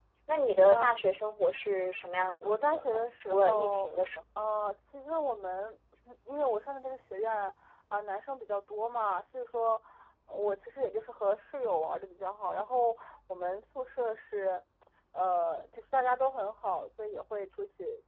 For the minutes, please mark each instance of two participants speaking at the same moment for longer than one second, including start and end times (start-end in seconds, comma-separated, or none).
2.4-3.9